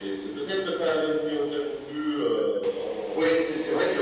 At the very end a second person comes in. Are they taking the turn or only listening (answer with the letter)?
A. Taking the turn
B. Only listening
A